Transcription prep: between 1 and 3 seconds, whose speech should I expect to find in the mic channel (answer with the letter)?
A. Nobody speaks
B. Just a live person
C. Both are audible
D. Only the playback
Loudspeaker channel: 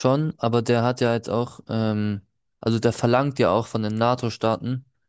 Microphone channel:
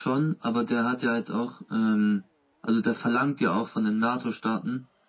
D